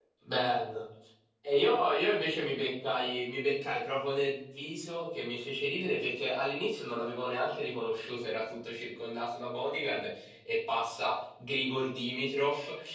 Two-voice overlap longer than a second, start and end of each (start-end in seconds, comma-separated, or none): none